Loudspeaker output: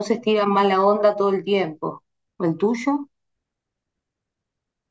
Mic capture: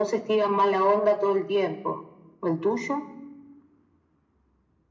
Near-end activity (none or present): none